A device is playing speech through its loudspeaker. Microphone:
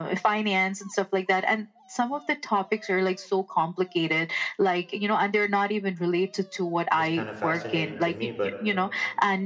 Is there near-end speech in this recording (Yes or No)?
Yes